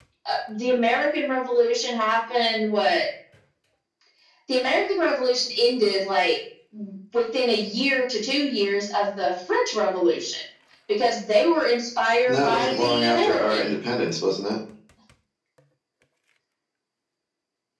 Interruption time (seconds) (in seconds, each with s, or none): 12.3 s